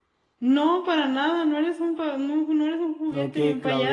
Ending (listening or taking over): taking over